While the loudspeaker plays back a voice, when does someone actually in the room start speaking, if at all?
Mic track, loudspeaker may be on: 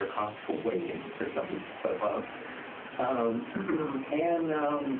none

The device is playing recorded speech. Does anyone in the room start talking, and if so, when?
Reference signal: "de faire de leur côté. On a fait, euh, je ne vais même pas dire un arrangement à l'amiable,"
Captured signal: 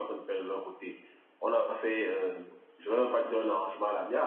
none

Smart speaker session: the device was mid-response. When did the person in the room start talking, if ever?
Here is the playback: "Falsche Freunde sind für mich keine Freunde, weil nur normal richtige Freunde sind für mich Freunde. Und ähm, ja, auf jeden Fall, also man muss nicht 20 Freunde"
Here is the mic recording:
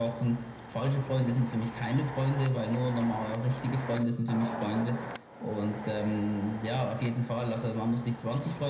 none

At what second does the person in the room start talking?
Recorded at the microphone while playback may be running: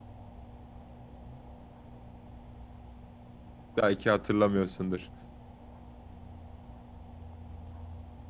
3.8 s

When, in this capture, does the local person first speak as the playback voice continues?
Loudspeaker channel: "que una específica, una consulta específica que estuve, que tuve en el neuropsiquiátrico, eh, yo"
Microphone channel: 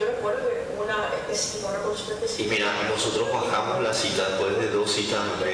2.4 s

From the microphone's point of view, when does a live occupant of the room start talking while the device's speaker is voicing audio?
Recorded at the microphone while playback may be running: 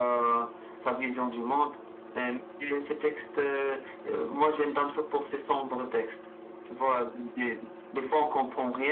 none

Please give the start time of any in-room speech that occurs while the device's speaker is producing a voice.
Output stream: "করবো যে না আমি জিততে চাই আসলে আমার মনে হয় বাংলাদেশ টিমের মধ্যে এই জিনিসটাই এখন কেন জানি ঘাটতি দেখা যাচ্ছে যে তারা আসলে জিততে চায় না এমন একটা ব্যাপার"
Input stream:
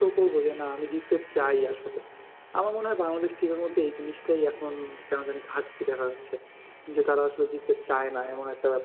none

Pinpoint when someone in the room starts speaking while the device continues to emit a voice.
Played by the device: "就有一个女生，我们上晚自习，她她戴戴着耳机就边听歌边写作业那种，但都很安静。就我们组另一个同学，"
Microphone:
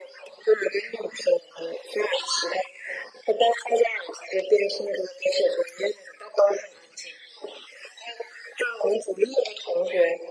none

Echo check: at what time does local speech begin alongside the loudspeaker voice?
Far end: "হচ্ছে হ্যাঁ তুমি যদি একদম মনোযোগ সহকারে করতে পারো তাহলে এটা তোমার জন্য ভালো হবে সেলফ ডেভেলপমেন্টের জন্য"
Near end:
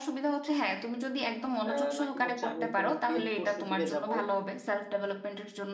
1.7 s

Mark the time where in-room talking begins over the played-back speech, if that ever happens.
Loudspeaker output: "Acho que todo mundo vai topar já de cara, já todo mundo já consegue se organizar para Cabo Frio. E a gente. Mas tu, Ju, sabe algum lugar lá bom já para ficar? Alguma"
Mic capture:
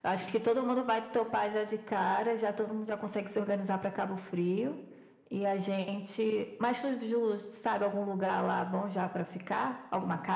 none

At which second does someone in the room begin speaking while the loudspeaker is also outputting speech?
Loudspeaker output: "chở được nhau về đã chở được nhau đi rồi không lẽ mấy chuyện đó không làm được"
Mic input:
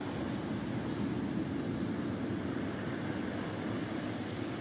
none

